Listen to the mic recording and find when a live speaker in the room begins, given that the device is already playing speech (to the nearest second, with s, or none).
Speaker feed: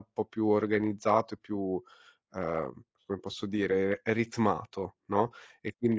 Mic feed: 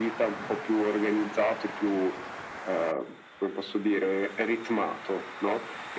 none